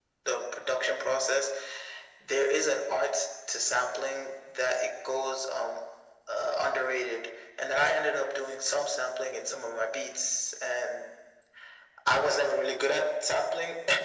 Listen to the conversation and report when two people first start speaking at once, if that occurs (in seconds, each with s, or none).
none